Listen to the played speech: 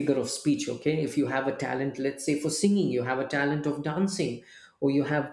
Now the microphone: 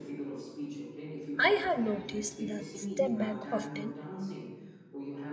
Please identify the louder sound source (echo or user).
user